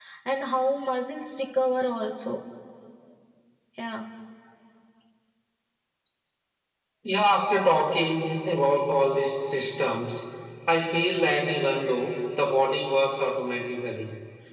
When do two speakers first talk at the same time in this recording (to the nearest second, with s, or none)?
none